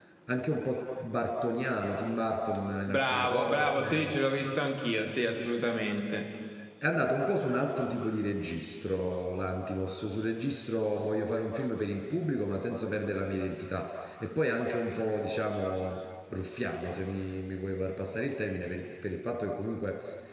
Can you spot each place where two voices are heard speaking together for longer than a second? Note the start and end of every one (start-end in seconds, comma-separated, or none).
2.9-4.2